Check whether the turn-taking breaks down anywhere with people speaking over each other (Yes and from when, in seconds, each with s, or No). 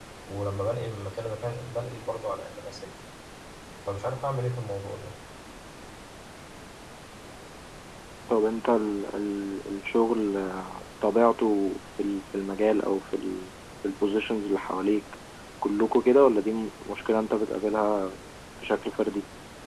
No